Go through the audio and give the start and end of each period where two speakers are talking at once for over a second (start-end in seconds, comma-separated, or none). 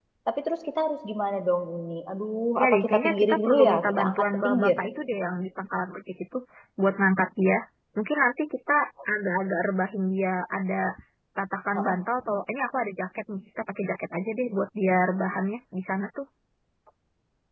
2.6-4.8